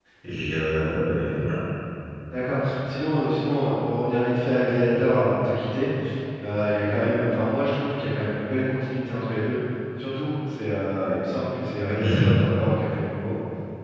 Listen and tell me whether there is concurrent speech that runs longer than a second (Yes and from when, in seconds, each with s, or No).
No